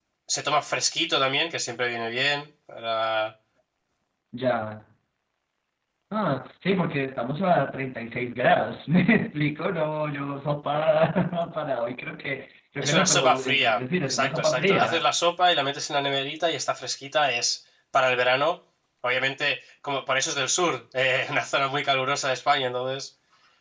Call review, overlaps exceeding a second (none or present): present